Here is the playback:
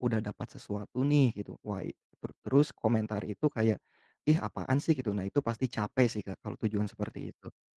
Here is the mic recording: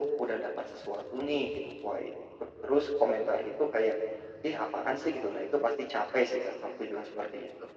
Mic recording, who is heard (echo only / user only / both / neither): echo only